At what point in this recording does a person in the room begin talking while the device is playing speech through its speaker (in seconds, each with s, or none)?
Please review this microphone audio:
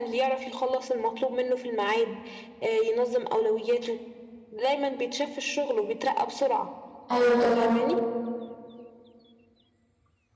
7.1 s